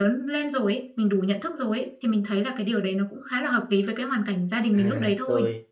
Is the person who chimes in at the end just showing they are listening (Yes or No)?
No